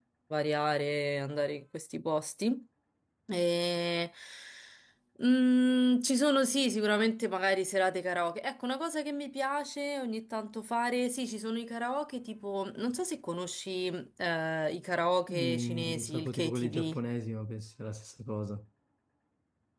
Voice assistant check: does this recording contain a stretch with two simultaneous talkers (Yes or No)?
Yes